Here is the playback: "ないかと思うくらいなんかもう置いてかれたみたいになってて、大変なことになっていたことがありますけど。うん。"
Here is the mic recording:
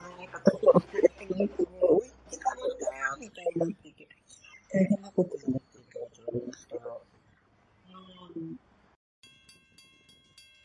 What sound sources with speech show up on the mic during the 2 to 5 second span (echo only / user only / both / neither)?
echo only